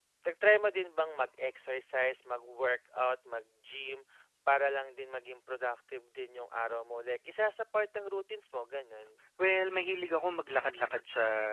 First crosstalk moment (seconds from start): none

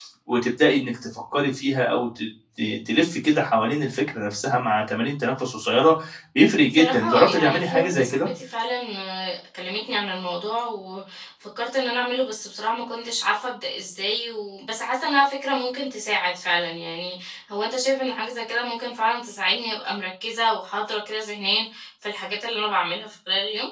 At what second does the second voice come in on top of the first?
6.7 s

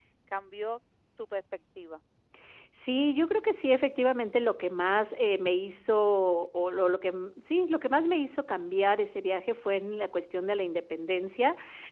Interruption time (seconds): none

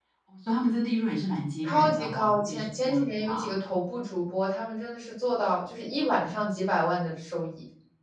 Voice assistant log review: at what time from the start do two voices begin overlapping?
1.6 s

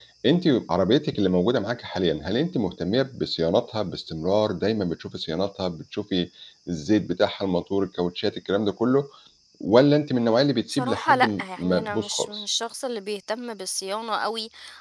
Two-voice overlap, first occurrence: 10.7 s

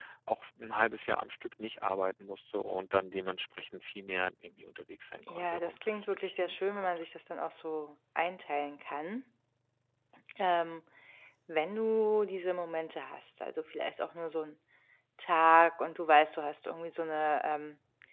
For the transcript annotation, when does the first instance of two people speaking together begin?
5.3 s

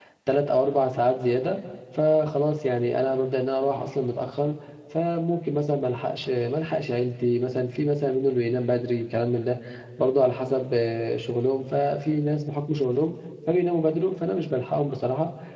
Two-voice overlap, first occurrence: none

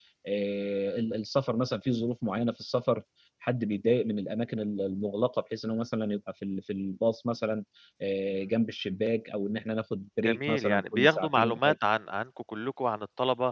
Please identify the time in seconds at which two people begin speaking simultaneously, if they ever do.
10.2 s

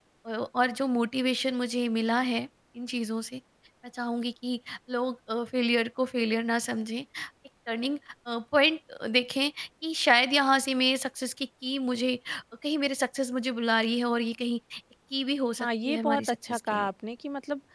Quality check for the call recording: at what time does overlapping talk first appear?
15.6 s

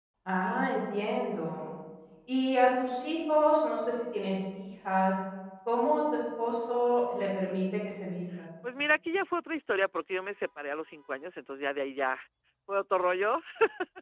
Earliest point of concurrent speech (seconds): none

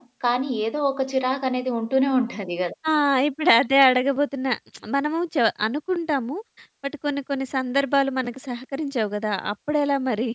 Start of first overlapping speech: none

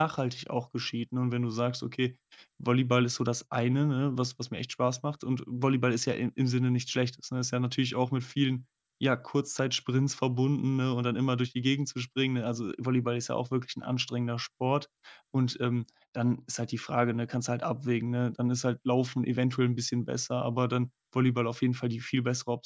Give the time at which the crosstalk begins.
none

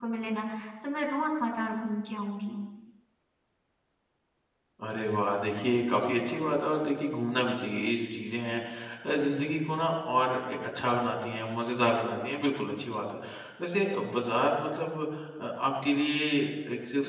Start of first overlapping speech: none

